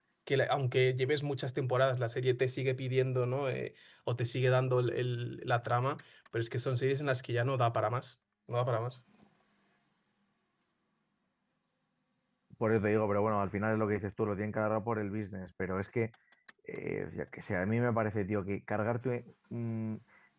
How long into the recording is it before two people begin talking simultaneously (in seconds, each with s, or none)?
none